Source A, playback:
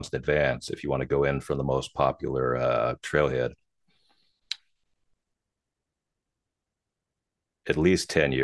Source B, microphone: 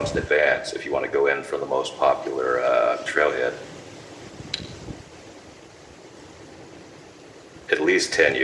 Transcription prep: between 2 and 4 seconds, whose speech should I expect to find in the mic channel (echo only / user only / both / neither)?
echo only